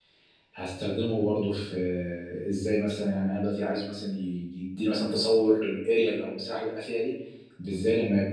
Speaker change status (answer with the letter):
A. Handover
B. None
B